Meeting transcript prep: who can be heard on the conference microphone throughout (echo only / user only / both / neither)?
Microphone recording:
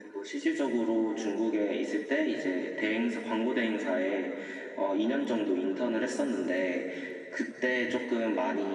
echo only